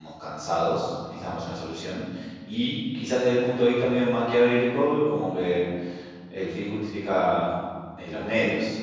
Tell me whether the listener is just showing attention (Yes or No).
Yes